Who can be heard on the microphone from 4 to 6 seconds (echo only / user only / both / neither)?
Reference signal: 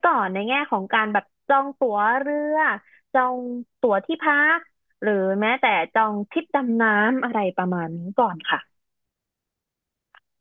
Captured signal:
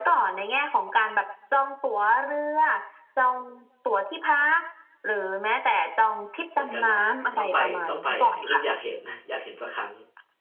echo only